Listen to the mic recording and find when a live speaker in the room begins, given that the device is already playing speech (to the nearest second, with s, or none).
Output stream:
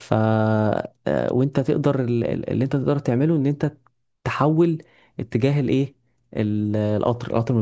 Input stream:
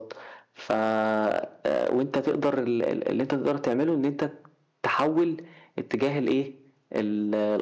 none